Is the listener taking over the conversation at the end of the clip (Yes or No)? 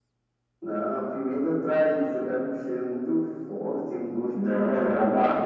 Yes